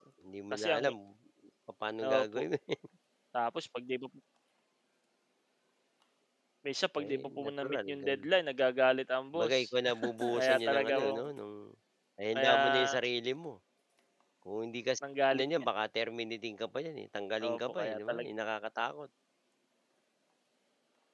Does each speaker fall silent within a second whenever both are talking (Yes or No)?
No